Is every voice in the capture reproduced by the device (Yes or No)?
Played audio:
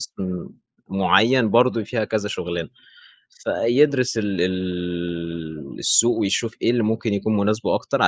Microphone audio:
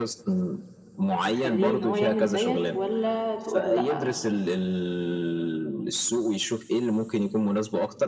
No